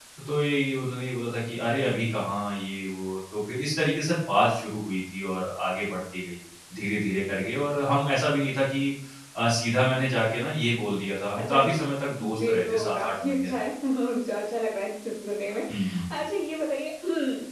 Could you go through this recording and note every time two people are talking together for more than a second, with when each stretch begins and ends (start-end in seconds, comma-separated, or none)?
12.2-13.5